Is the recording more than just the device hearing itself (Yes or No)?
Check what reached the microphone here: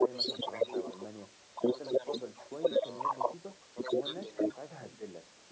Yes